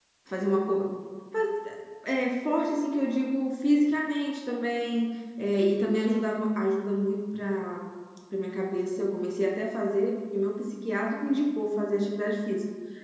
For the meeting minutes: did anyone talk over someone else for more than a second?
No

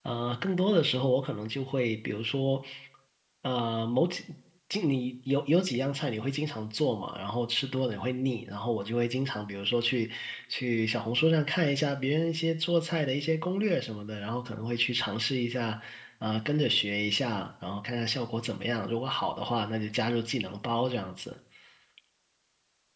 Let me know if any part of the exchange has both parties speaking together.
No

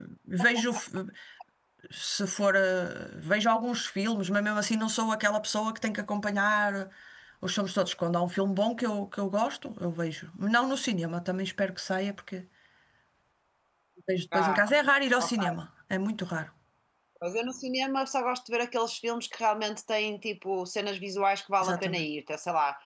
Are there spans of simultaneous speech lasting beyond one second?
No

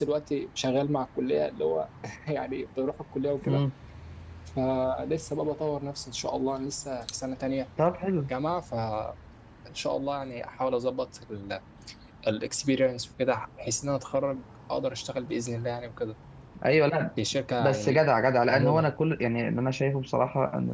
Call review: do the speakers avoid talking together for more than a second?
Yes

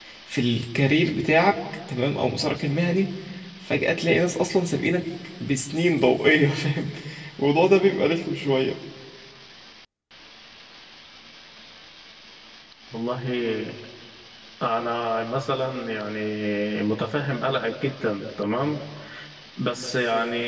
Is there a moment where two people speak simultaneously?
No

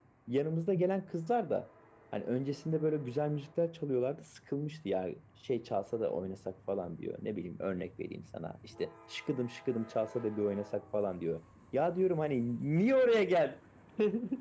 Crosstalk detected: No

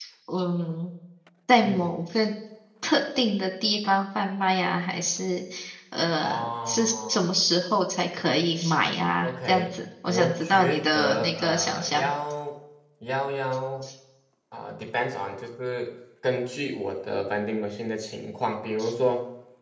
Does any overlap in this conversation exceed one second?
Yes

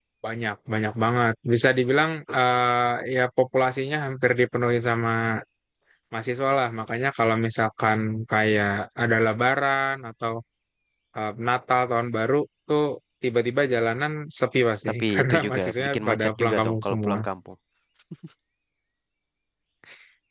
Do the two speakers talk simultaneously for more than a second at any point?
Yes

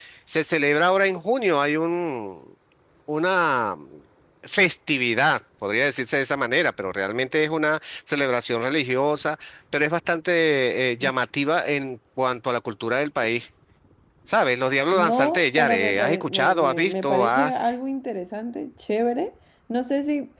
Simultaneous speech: Yes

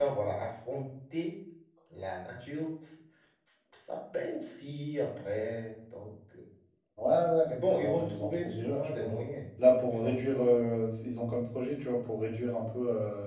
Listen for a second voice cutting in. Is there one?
Yes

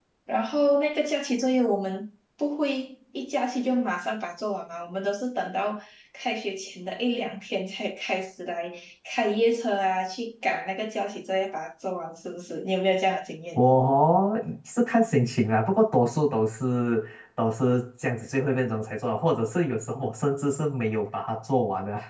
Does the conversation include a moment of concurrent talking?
No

